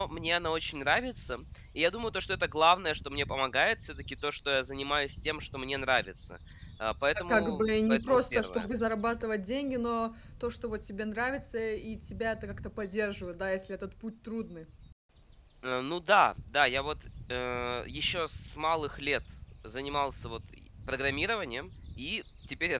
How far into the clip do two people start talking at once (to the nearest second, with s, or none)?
7 s